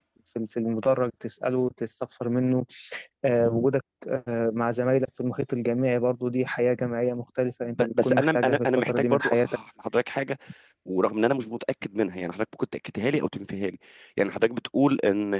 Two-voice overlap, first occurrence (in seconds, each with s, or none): 7.8 s